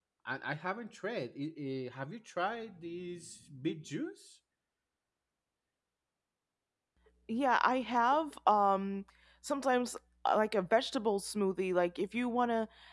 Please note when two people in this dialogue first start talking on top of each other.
none

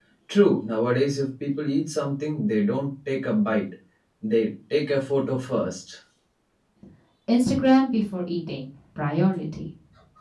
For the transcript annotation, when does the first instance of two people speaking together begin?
none

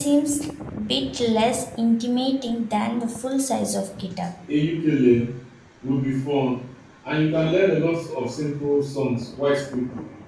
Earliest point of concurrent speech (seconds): none

